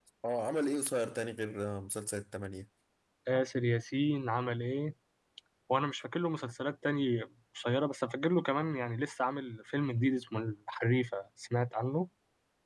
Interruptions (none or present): none